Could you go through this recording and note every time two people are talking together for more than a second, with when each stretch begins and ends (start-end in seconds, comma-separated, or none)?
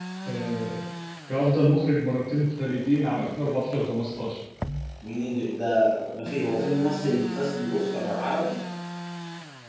none